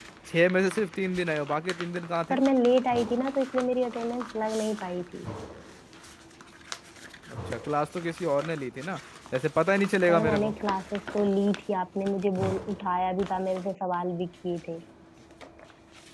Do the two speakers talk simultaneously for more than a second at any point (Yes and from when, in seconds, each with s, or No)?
No